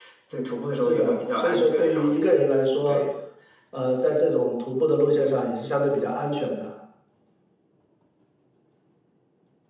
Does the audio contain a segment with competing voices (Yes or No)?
Yes